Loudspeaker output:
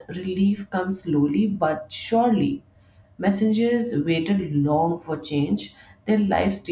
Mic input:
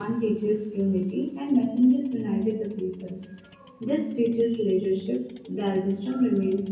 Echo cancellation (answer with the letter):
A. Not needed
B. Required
A